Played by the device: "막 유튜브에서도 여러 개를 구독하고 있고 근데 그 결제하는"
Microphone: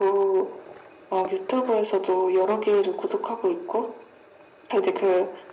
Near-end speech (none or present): none